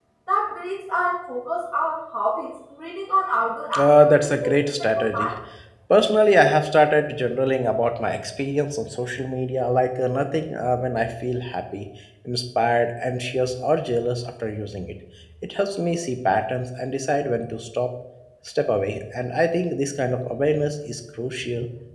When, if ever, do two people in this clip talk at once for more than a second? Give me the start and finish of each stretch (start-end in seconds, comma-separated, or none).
3.8-5.3